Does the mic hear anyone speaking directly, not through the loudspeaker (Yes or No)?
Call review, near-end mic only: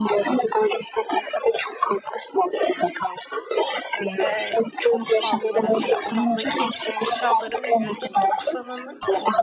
Yes